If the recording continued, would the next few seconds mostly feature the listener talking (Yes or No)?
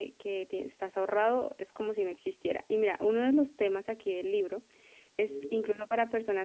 No